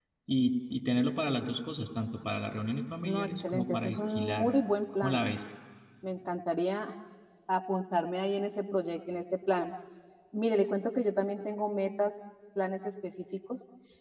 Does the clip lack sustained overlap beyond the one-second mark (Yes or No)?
No